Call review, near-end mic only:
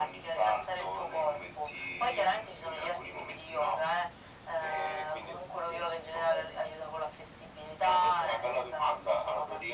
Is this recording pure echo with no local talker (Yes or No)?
Yes